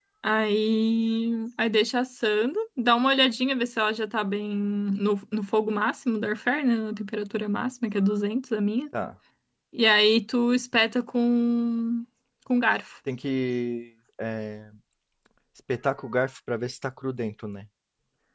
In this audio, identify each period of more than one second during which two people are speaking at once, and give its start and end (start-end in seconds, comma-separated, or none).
none